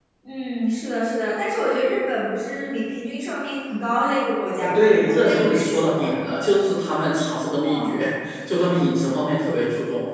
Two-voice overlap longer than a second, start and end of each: 4.6-6.0

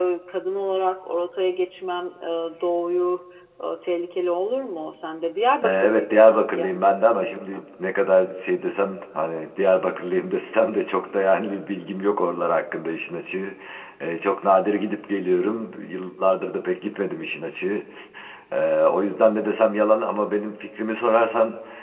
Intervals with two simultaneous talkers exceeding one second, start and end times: 5.6-7.6

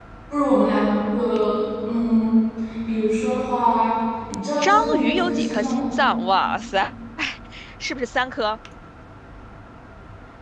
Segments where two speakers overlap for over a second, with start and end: 4.6-5.9

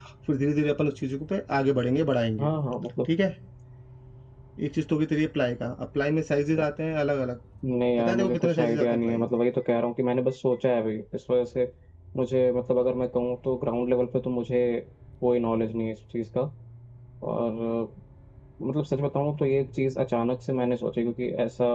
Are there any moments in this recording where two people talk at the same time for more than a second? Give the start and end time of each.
8.0-9.3

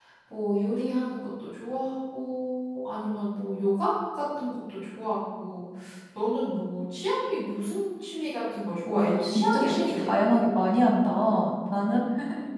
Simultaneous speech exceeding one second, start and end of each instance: 8.9-10.1

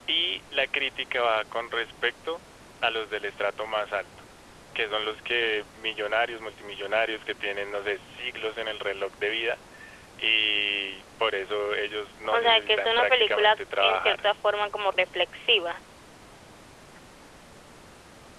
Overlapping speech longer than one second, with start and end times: 12.3-14.2

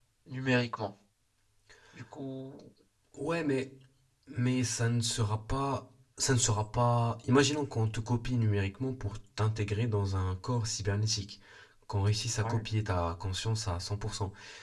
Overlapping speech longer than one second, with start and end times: none

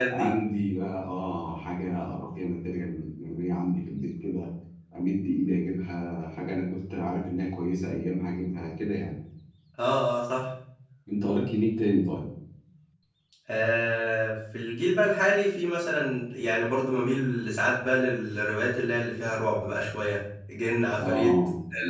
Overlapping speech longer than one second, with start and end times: none

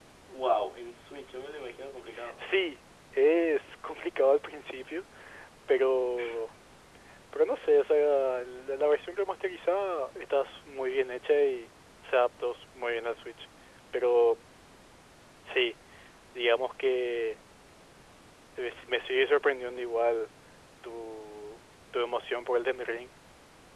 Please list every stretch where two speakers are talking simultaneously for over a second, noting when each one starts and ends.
none

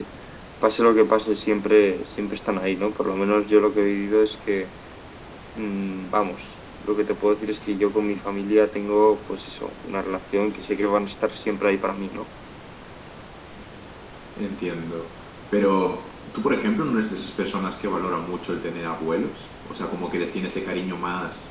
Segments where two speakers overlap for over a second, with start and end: none

